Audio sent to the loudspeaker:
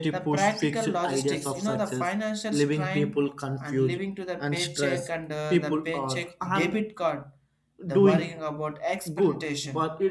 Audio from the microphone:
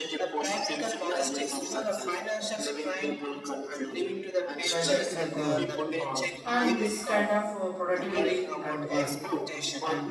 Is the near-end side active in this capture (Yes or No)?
Yes